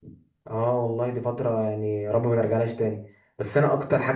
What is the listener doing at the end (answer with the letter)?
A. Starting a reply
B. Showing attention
B